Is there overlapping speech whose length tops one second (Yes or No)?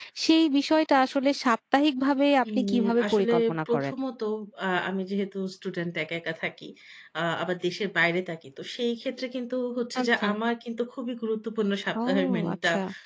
Yes